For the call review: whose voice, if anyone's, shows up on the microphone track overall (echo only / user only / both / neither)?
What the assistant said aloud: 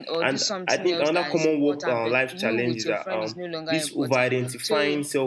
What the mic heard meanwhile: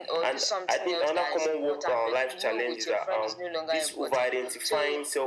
echo only